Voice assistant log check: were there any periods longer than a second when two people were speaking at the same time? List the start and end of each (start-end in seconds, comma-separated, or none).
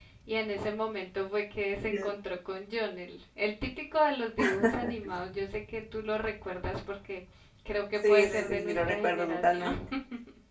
8.1-9.7